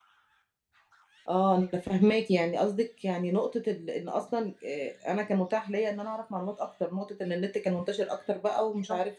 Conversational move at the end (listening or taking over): taking over